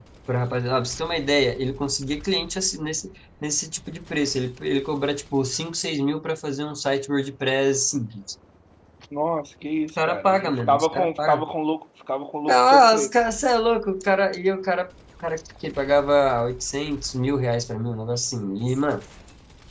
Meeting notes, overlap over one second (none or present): present